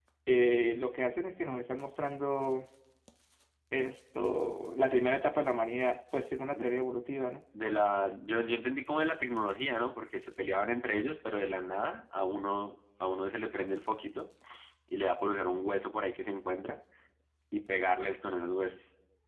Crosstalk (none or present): none